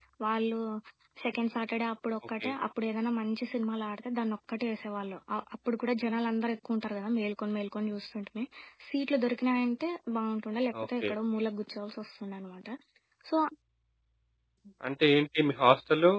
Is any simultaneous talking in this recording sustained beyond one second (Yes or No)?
No